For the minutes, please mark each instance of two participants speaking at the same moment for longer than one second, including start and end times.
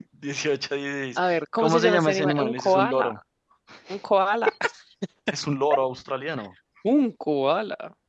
1.2-3.1

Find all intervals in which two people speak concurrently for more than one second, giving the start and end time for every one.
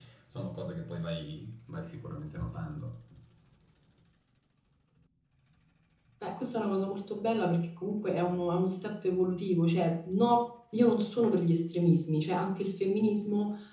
none

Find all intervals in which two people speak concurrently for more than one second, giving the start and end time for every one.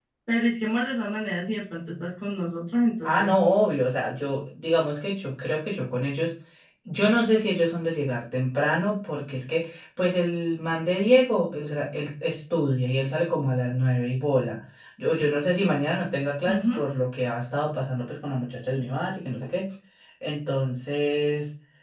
none

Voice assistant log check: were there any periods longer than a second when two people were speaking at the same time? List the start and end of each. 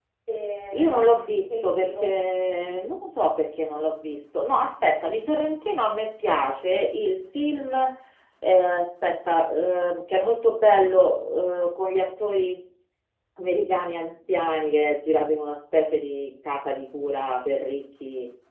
0.7-2.2

